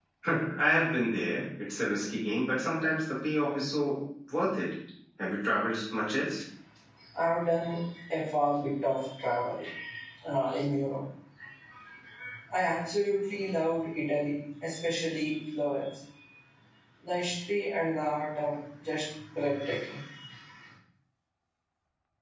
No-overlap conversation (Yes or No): Yes